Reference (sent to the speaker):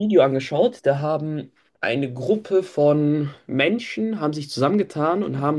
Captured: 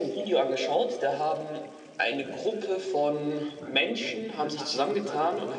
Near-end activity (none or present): present